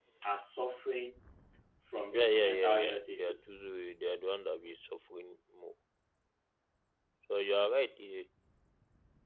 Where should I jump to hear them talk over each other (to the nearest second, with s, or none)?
2 s